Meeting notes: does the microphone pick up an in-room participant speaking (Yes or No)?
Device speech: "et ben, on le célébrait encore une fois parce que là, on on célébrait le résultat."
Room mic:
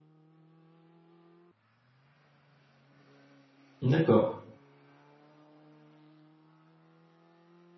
Yes